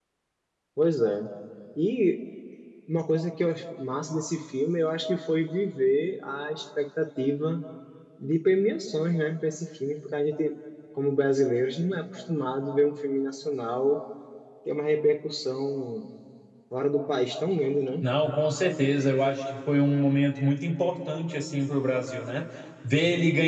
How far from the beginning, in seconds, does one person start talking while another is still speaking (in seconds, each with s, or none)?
none